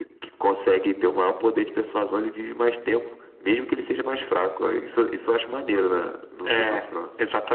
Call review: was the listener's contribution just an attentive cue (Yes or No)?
No